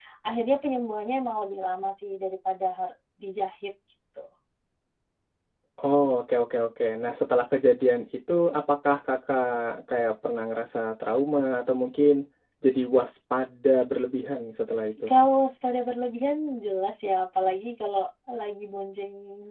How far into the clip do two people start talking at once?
none

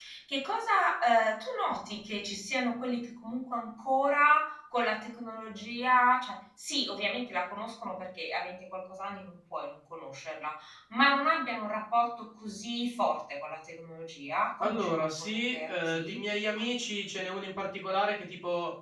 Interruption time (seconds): 14.6 s

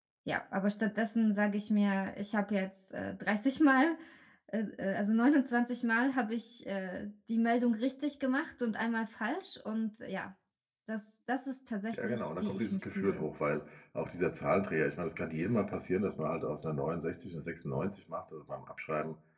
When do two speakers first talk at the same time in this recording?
11.9 s

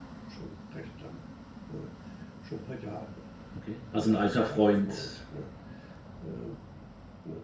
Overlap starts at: 3.9 s

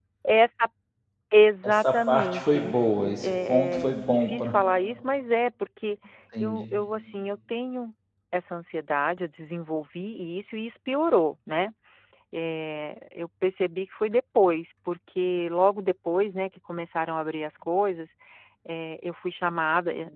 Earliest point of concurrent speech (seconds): 1.6 s

